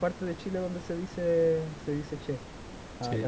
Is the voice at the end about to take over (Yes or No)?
Yes